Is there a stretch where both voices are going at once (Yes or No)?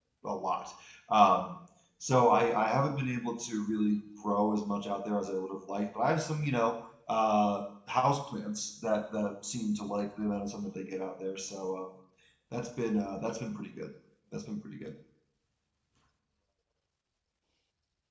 No